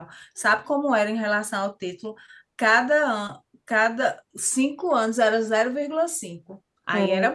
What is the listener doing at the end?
taking over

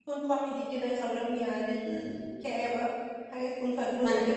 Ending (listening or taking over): taking over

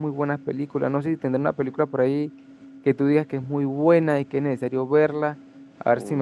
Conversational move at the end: taking over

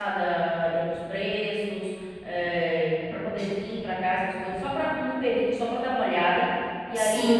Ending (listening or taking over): listening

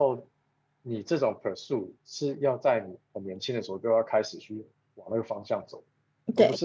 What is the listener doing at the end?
listening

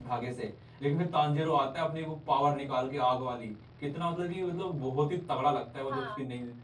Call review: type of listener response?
taking over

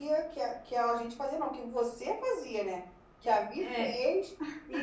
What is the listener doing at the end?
listening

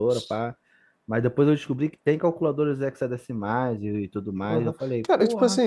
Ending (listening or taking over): taking over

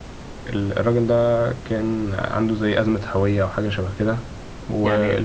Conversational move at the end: listening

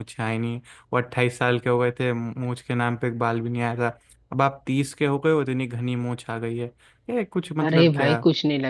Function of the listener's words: taking over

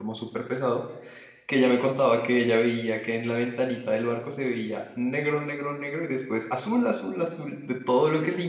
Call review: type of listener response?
listening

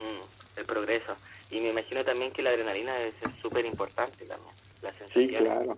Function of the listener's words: taking over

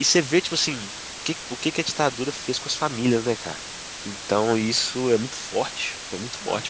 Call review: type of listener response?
taking over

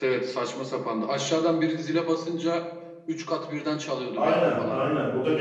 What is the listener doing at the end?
taking over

